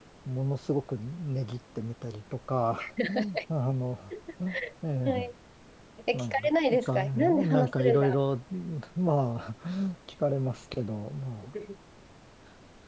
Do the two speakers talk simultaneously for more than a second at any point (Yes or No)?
Yes